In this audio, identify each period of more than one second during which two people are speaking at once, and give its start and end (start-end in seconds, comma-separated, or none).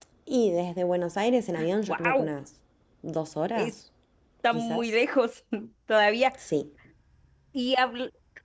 none